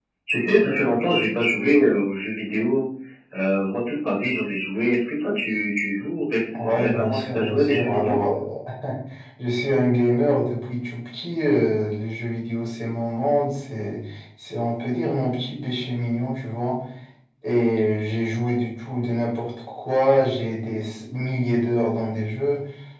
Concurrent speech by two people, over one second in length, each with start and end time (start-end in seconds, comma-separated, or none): 6.6-8.2